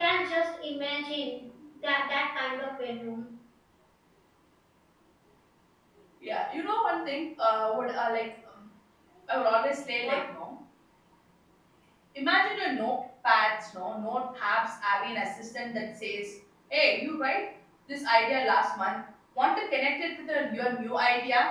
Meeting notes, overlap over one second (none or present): none